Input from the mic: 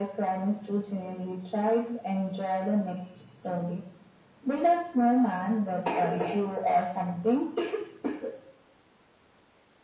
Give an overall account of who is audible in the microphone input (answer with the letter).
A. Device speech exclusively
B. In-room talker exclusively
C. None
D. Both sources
A